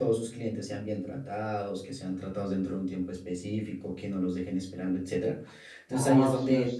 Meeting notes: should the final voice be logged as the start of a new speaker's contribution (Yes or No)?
Yes